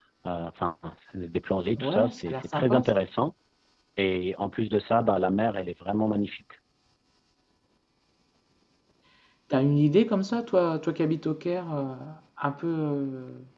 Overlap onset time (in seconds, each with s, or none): 1.8 s